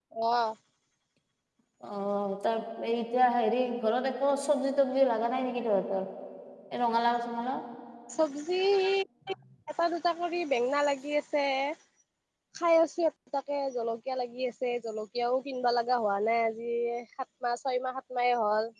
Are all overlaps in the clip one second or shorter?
Yes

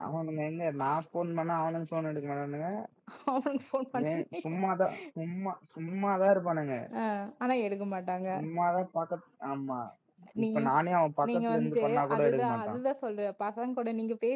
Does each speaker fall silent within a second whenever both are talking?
No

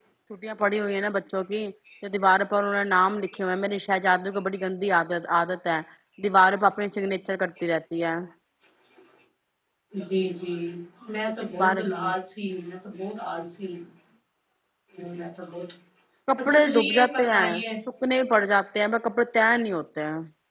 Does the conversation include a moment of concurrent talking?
Yes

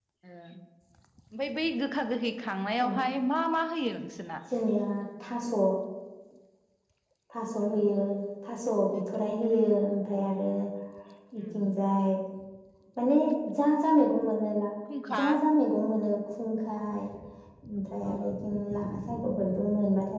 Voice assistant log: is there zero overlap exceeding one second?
Yes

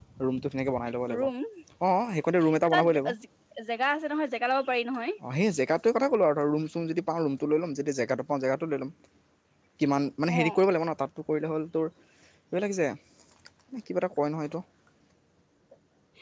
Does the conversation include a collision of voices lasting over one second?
No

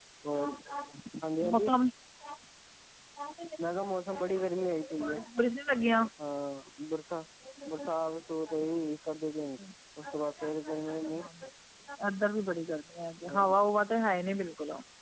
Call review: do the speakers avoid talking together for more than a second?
Yes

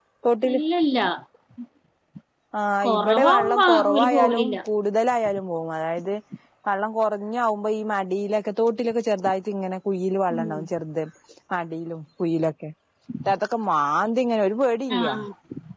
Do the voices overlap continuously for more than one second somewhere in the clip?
Yes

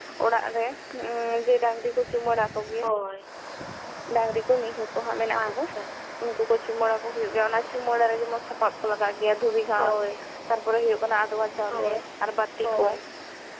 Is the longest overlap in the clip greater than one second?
No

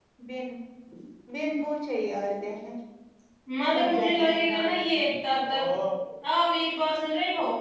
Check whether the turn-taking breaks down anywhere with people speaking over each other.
Yes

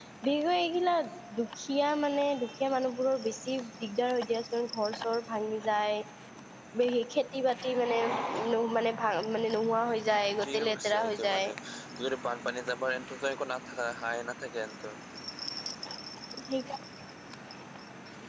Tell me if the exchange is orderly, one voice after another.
No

